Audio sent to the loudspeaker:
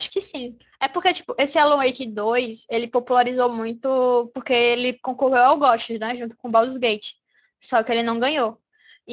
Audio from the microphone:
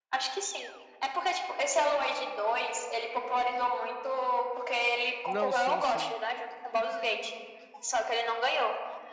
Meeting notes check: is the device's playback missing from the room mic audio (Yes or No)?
No